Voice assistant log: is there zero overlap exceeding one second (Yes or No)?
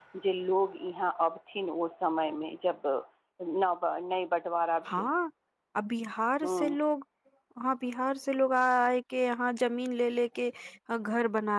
Yes